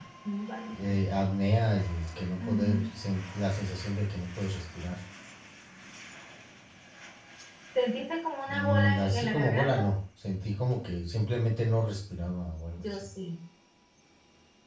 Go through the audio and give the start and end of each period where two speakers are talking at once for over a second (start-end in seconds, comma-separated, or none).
8.5-9.9